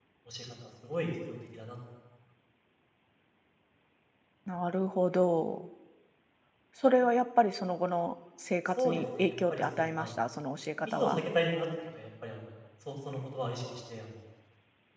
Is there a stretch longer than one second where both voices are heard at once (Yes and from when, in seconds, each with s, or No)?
Yes, from 8.8 s